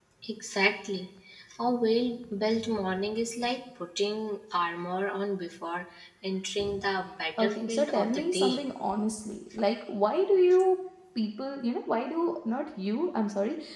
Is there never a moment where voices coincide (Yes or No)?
No